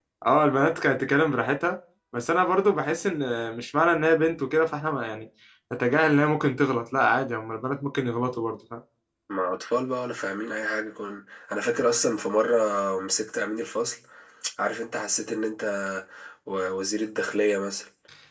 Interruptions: none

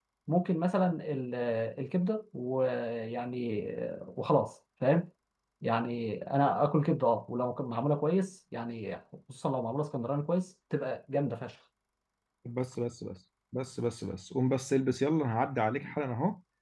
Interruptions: none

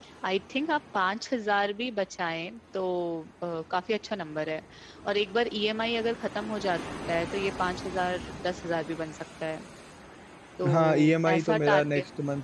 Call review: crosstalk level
present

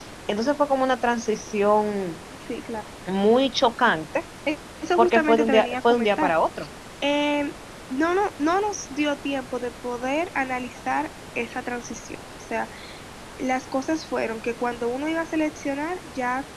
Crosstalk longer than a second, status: present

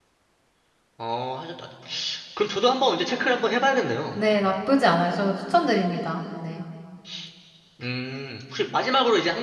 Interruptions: none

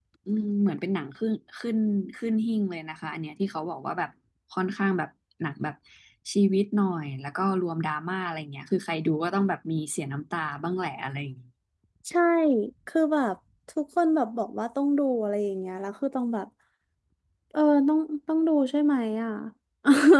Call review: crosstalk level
none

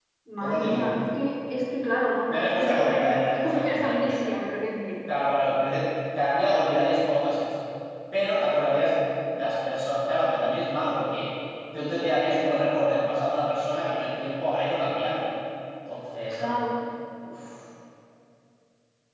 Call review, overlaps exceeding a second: present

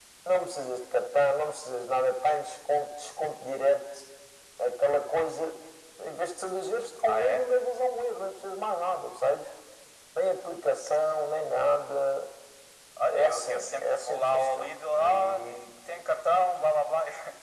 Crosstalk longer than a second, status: present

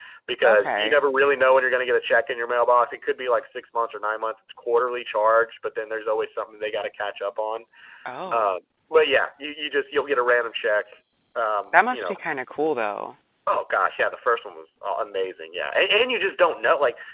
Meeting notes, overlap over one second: none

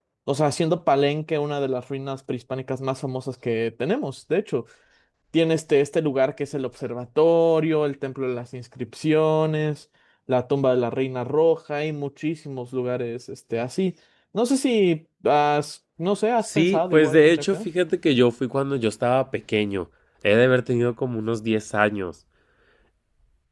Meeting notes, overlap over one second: present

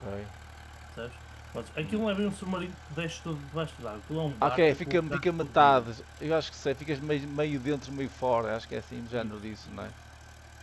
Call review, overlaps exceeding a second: present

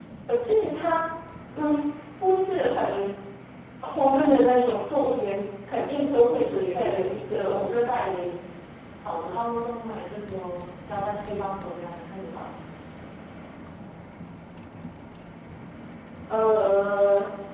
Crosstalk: present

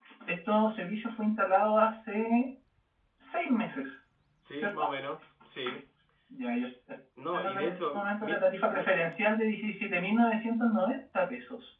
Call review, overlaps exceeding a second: present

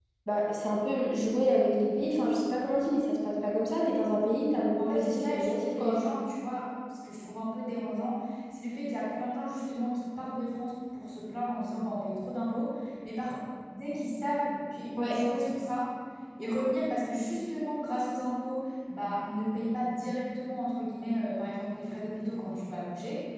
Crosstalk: present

